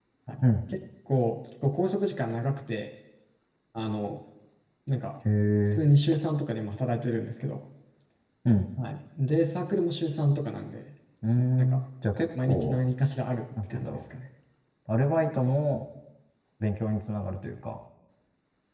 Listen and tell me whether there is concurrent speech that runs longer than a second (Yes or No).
No